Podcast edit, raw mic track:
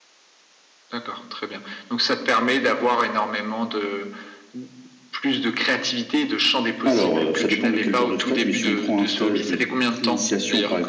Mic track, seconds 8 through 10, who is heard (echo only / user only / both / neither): both